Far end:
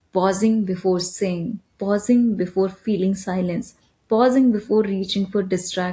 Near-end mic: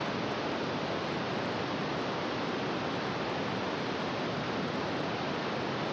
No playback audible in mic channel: Yes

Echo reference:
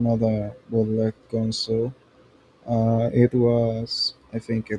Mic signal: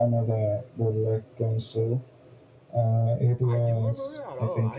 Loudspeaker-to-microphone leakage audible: Yes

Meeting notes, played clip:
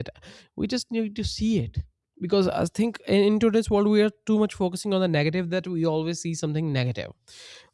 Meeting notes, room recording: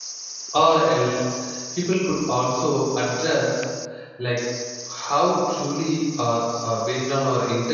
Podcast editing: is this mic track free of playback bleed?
Yes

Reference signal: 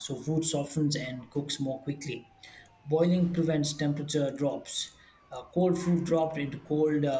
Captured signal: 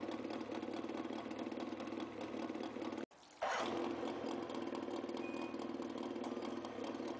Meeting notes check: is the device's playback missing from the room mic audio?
Yes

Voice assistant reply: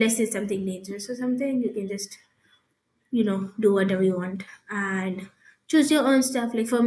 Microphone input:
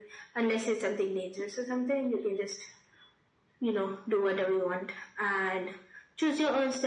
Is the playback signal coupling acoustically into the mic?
Yes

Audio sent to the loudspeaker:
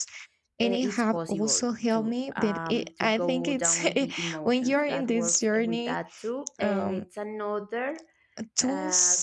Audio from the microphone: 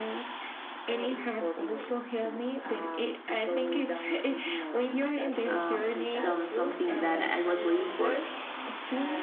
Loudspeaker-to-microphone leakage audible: Yes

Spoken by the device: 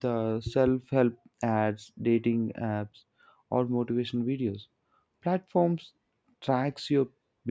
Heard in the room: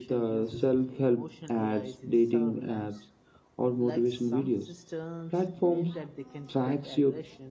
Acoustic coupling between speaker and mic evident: Yes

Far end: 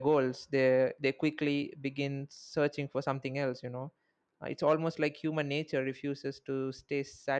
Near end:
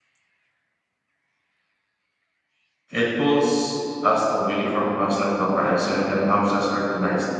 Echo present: No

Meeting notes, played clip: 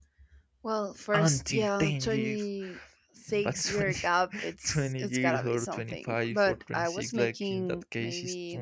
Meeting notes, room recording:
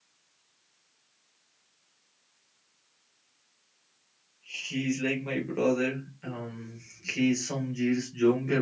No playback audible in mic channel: Yes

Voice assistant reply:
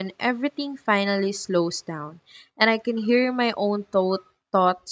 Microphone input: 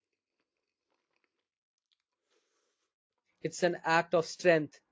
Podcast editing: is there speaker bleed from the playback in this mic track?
No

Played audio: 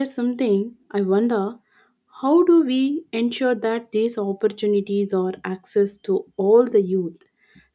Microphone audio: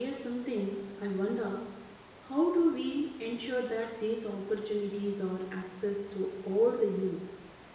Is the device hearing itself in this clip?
Yes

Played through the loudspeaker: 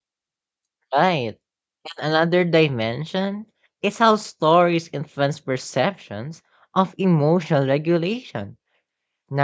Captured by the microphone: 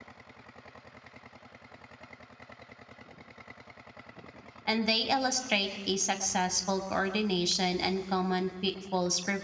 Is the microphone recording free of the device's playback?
Yes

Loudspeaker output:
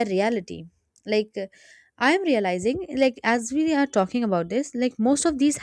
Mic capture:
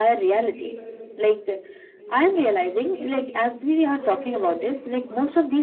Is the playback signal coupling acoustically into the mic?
Yes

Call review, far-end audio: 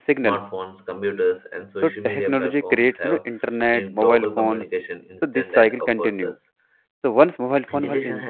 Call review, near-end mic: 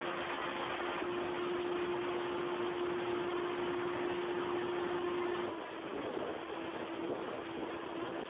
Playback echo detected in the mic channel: No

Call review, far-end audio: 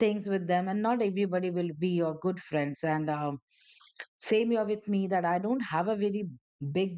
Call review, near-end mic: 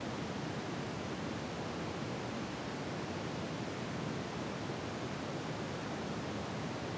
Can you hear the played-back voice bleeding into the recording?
No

